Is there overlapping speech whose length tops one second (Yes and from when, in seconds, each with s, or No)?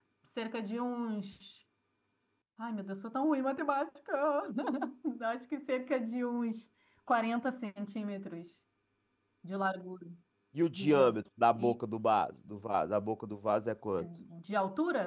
No